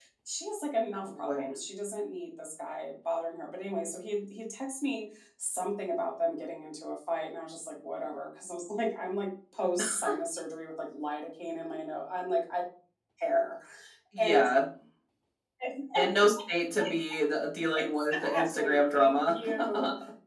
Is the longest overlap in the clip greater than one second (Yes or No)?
Yes